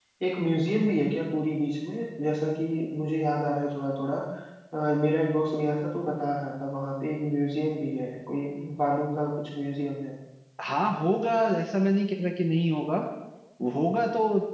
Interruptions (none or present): none